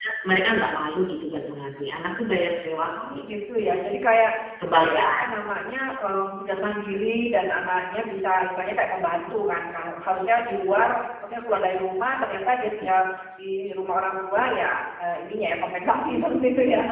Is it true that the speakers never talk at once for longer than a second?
Yes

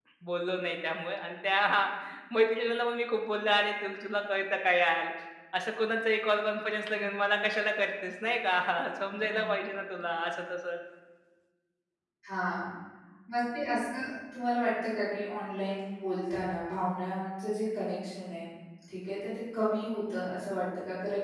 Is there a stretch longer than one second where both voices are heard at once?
No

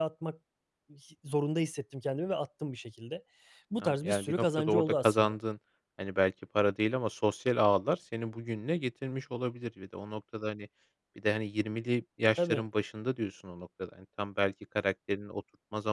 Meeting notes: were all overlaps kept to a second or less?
No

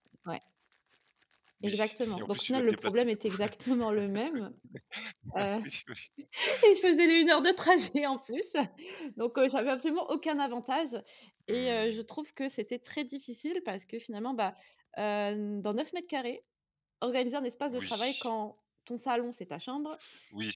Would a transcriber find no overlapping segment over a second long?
No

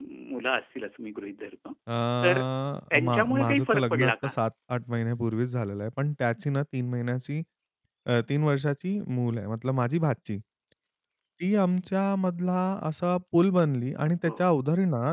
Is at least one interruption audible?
Yes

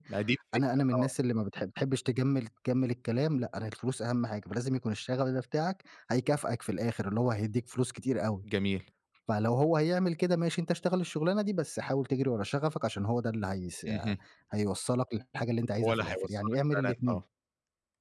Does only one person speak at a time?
No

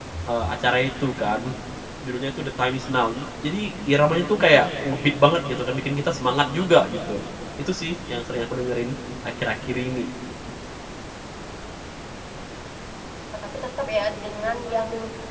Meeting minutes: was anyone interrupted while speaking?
No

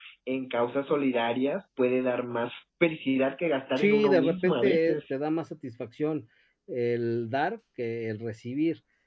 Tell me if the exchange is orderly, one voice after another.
No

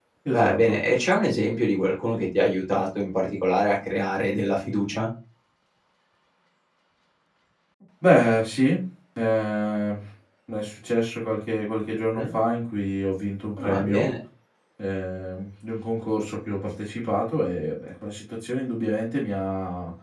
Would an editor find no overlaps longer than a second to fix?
Yes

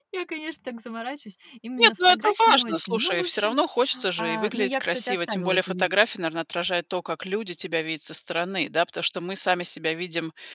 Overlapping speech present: Yes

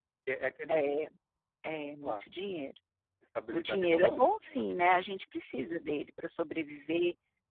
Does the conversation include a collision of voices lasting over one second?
Yes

